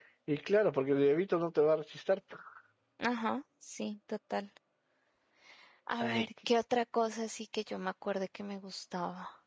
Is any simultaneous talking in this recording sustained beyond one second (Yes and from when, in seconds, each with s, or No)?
No